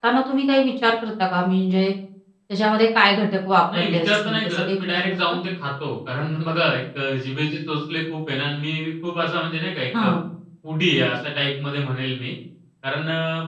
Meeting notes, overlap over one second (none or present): present